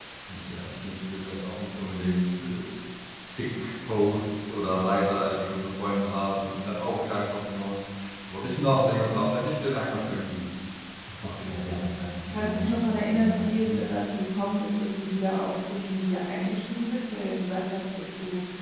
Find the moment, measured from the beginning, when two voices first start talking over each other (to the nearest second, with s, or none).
12 s